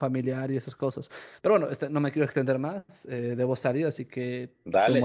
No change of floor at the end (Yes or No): No